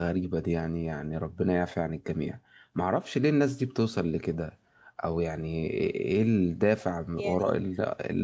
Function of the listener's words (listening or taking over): listening